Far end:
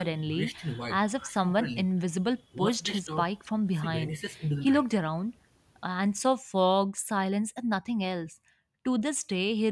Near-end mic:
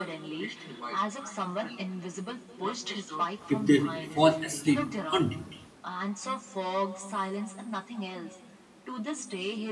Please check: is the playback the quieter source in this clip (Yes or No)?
Yes